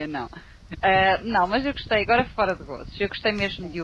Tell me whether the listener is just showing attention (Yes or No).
Yes